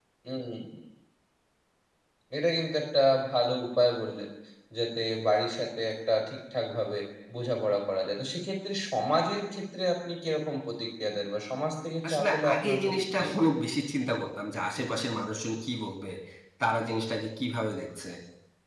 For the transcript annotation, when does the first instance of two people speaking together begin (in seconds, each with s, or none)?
12.0 s